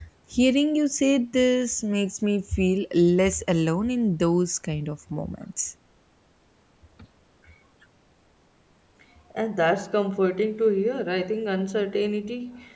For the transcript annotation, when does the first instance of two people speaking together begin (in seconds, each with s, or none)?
none